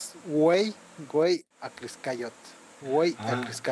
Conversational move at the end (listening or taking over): taking over